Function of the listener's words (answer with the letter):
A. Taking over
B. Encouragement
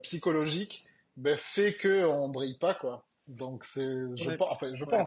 A